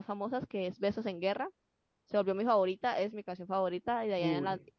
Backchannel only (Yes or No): Yes